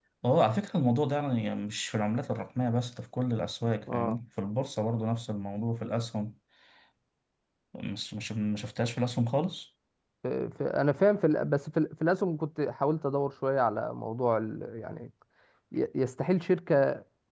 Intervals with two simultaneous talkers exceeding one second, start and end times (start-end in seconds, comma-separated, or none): none